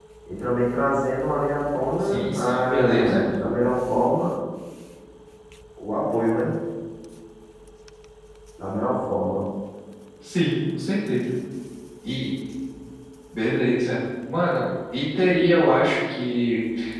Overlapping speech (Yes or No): Yes